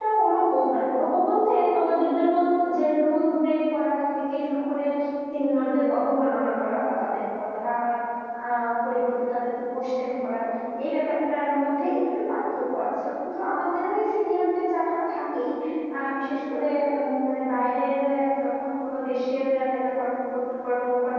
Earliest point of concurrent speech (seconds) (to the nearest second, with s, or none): none